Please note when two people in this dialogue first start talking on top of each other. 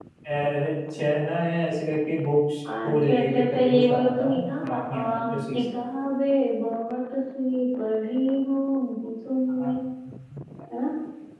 2.6 s

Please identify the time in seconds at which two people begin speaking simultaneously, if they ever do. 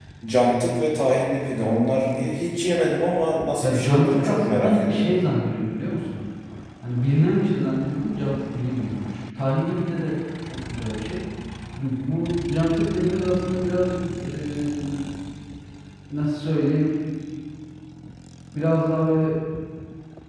3.6 s

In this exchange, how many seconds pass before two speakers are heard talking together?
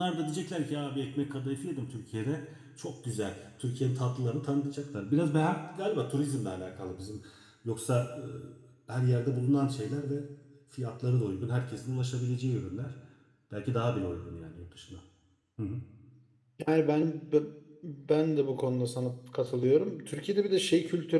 none

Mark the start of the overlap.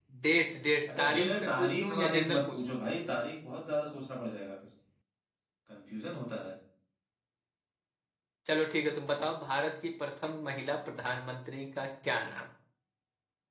0.9 s

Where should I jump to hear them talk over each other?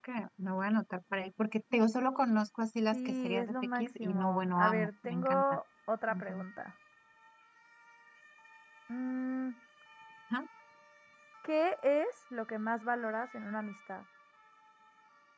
2.9 s

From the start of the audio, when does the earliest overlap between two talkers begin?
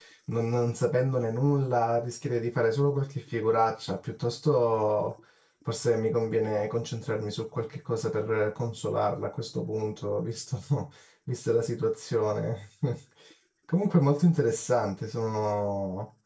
none

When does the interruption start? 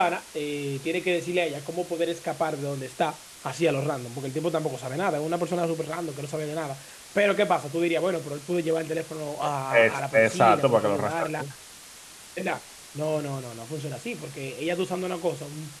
9.7 s

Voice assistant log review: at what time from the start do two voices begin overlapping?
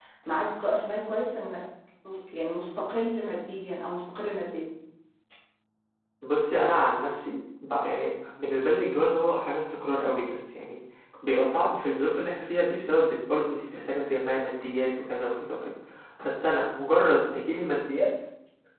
none

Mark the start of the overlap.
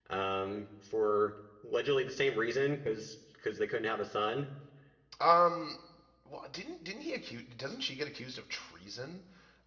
none

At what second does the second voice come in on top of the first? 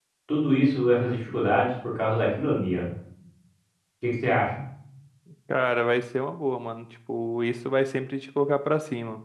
none

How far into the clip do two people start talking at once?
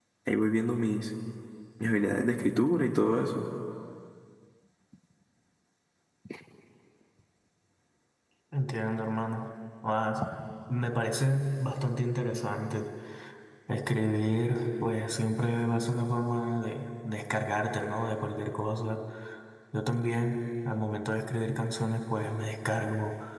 none

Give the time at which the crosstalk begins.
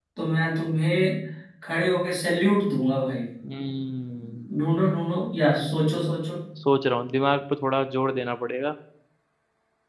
none

